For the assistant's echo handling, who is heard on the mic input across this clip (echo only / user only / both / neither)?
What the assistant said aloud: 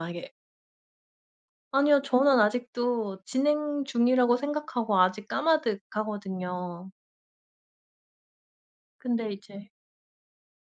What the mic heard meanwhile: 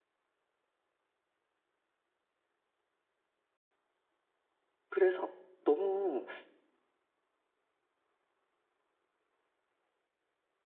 user only